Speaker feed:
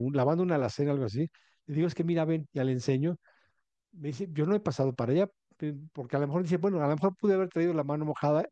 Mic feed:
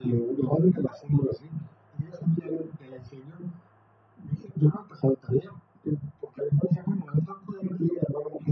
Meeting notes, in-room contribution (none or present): none